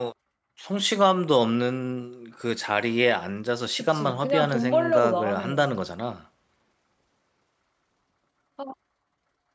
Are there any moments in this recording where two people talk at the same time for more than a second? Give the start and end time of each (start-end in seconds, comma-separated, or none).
3.8-5.7